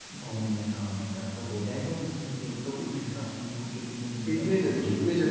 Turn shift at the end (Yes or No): Yes